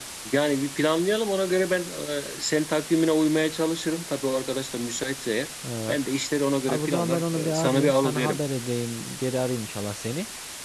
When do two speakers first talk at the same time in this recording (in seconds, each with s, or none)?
6.7 s